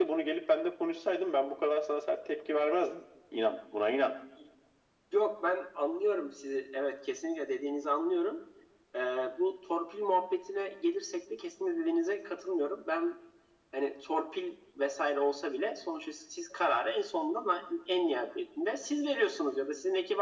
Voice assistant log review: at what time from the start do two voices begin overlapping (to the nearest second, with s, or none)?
none